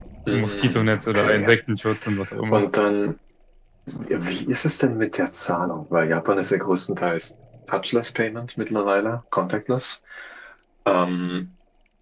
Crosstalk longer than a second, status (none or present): present